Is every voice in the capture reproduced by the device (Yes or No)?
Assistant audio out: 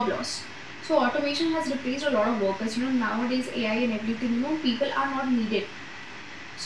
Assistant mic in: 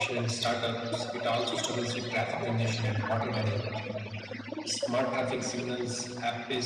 No